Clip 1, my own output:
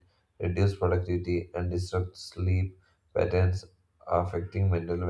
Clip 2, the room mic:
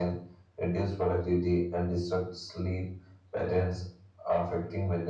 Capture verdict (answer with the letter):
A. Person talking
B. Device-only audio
B